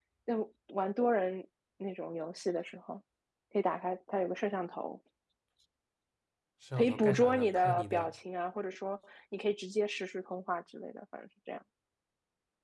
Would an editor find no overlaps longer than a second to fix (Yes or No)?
No